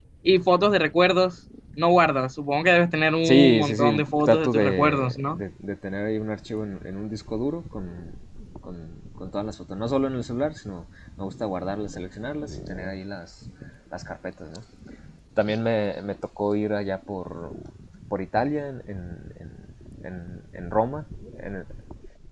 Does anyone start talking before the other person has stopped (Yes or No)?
Yes